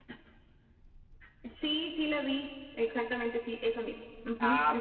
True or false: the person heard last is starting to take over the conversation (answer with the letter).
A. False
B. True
B